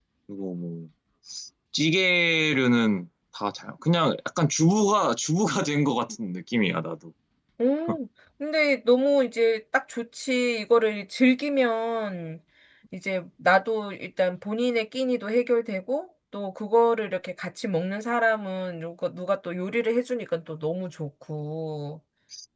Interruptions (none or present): none